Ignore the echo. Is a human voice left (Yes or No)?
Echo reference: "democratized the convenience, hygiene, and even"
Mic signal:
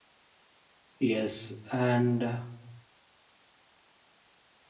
Yes